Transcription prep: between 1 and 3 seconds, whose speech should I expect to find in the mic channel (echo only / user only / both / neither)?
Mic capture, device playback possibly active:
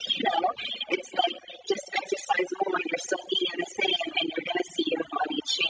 echo only